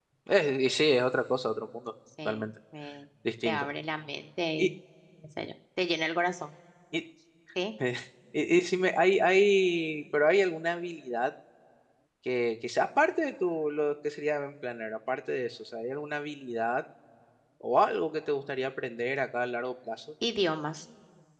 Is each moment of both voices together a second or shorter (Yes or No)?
Yes